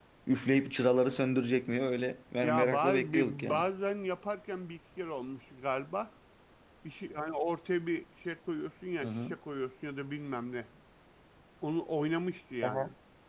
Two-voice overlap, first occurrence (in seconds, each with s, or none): 2.4 s